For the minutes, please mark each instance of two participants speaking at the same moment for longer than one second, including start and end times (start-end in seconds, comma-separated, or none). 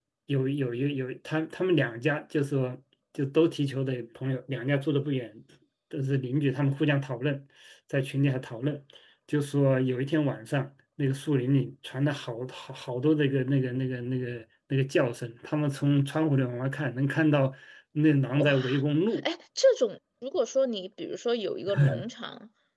none